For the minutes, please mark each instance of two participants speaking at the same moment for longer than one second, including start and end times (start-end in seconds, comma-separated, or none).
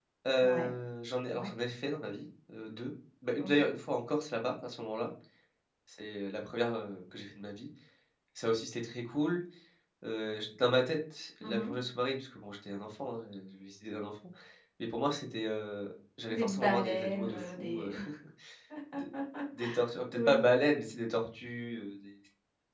16.3-17.9